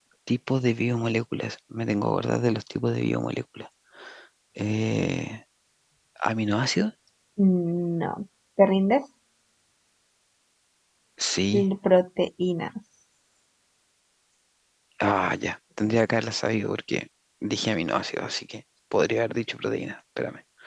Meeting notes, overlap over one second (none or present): none